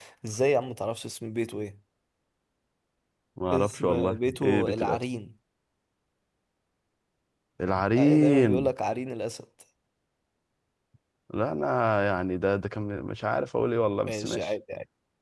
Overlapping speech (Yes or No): Yes